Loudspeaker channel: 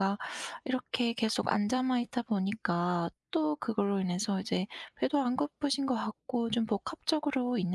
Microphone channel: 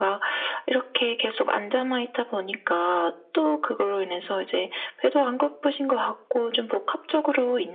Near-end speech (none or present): none